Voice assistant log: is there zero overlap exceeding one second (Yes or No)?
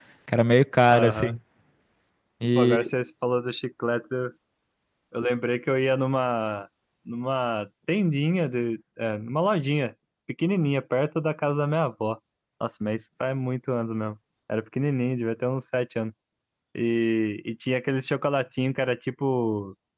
Yes